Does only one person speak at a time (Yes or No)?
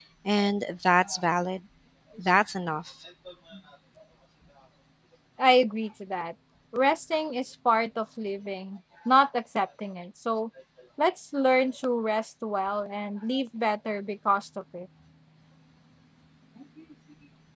Yes